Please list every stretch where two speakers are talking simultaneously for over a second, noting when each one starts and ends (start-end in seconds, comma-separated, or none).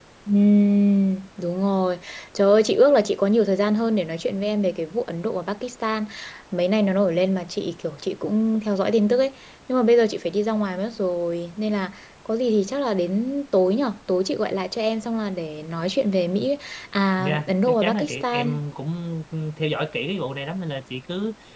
17.2-18.6